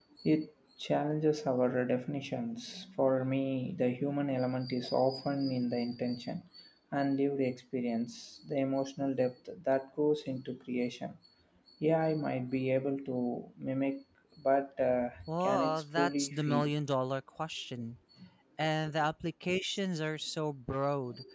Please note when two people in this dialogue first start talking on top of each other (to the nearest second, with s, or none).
15 s